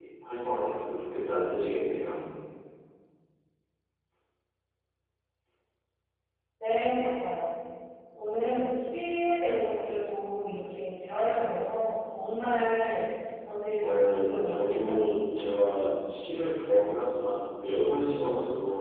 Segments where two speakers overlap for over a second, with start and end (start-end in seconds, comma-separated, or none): 13.8-15.2